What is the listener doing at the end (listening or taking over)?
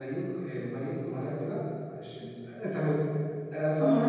listening